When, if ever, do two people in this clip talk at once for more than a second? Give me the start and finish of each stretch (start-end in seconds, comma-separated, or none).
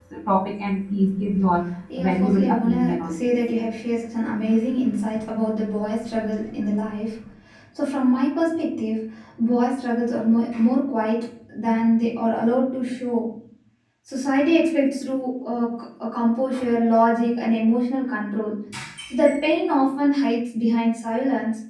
2.0-3.3